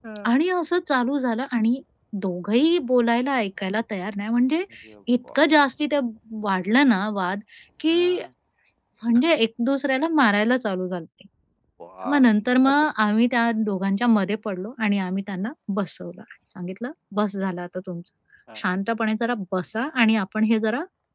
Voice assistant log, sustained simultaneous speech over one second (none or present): none